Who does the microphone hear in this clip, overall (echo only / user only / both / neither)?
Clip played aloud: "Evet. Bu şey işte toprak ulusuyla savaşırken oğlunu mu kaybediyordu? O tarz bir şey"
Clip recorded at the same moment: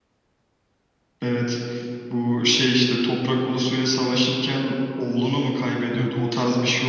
both